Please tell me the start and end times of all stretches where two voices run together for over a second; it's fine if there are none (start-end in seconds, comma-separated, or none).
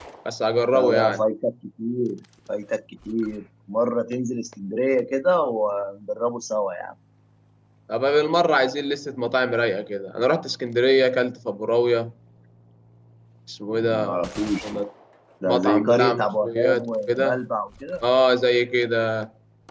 15.4-17.4